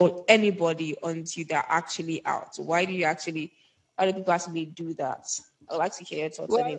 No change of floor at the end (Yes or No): No